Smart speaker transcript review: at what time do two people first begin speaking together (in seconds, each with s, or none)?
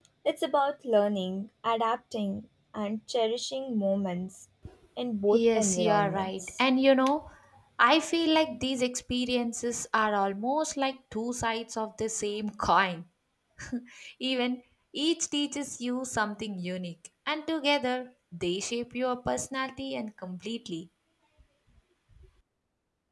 5.3 s